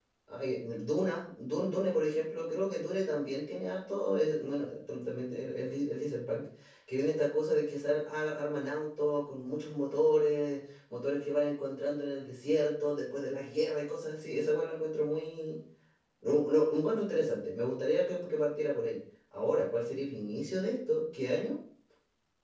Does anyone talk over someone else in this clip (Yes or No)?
No